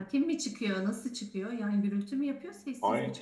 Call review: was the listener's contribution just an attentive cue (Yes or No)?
No